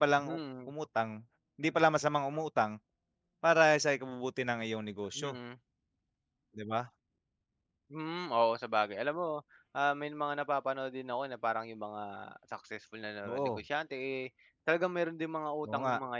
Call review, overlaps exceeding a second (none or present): none